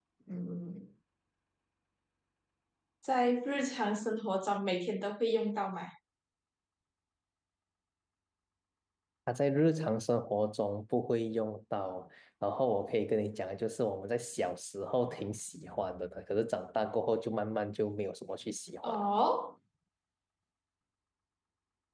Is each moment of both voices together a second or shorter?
Yes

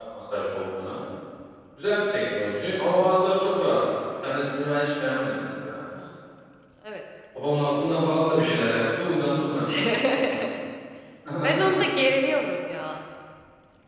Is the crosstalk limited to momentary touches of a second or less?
Yes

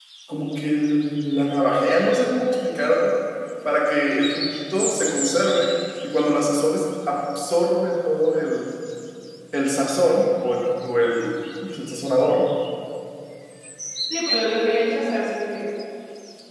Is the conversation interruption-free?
Yes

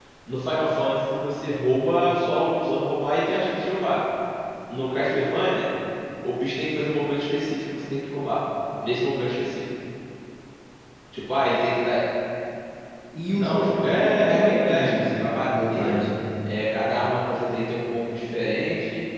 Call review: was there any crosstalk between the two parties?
Yes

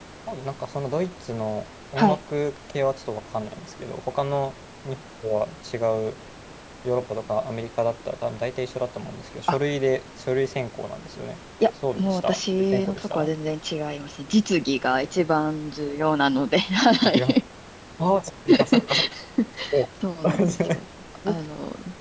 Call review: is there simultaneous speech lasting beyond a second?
Yes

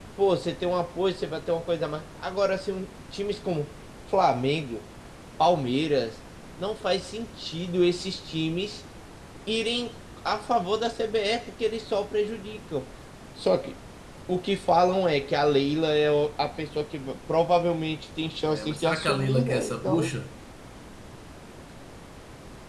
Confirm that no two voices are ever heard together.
No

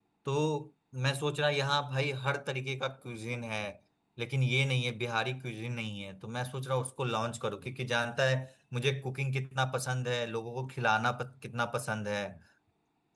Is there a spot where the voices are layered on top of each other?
No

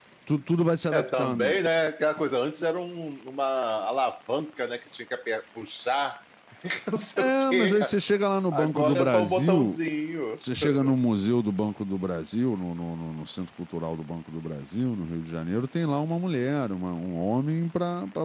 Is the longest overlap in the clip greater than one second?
Yes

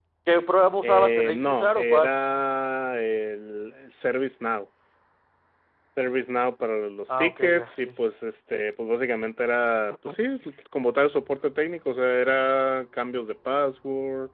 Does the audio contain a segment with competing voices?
Yes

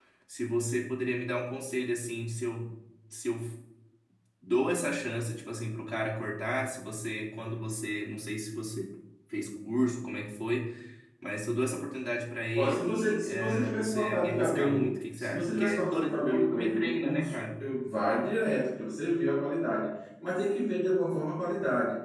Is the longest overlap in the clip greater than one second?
Yes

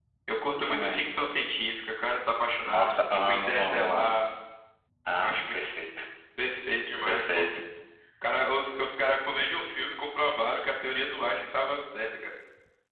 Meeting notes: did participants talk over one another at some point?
Yes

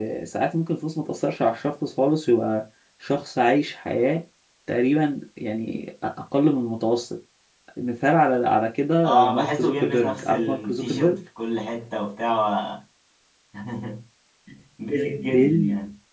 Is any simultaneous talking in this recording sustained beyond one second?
Yes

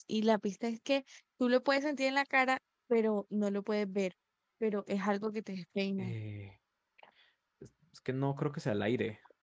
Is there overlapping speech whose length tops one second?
No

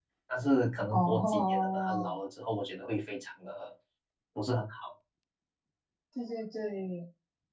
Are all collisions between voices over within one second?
No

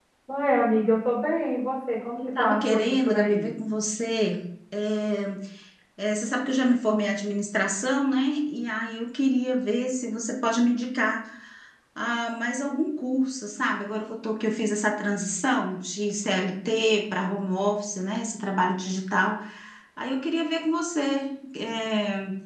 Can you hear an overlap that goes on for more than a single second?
Yes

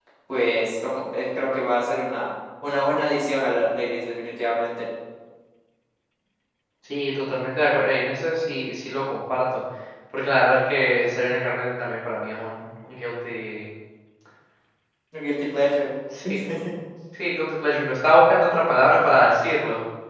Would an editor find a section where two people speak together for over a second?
No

